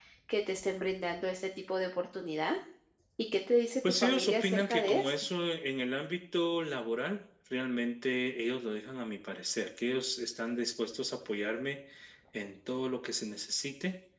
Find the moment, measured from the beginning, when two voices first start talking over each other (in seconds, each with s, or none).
3.9 s